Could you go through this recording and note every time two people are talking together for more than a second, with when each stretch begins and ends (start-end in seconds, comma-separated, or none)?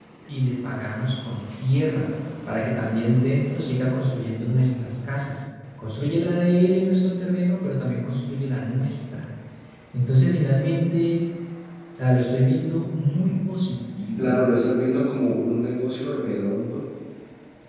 none